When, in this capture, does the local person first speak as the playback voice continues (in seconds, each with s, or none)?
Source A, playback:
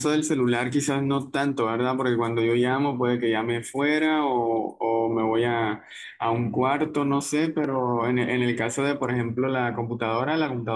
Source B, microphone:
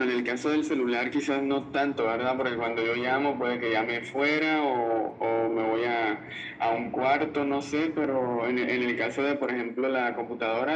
none